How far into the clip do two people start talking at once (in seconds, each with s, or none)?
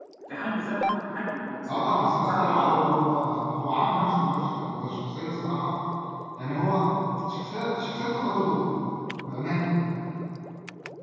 1.7 s